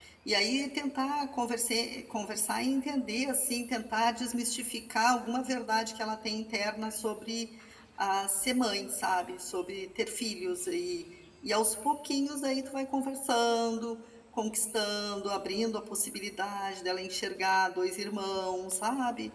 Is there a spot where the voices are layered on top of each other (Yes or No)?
No